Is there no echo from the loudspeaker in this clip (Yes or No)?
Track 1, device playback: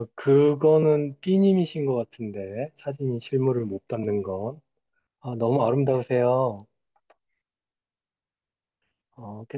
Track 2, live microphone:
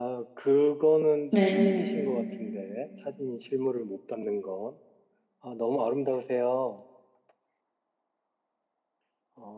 No